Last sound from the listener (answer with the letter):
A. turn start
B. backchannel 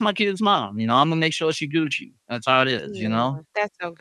A